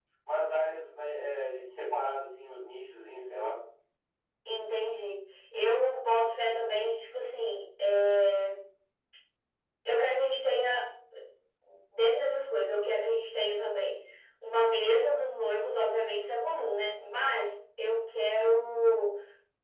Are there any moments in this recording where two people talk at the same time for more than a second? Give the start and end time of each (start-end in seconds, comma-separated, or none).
none